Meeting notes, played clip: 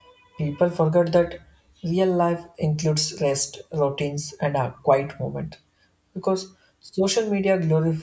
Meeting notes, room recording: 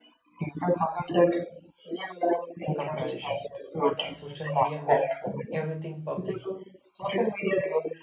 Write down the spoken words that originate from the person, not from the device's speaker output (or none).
comparisons, but uh, social media make everything public.